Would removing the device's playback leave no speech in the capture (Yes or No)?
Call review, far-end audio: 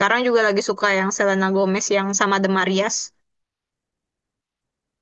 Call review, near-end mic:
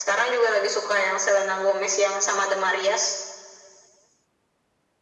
Yes